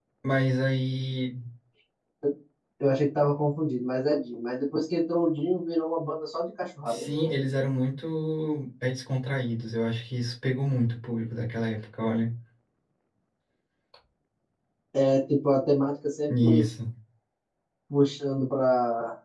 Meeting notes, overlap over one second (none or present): none